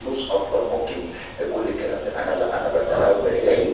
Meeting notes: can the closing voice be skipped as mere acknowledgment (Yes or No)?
No